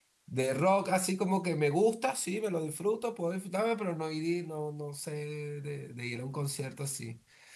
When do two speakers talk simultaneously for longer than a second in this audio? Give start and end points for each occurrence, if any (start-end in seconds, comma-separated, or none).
none